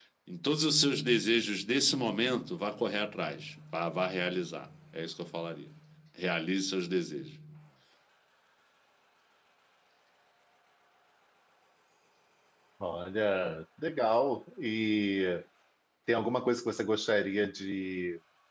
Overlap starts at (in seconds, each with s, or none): none